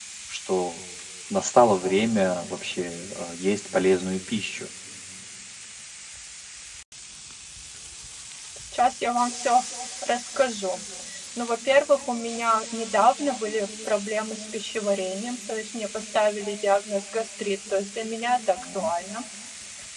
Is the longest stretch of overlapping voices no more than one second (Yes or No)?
Yes